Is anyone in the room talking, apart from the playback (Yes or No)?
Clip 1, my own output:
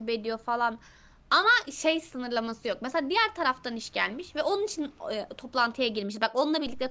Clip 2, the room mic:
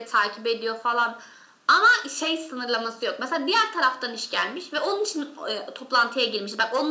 No